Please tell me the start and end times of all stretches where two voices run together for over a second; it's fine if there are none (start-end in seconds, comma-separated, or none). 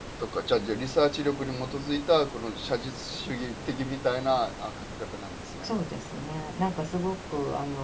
none